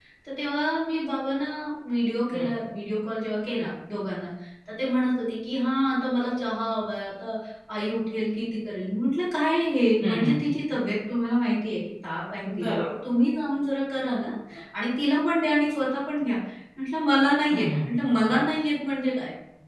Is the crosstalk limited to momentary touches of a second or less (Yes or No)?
Yes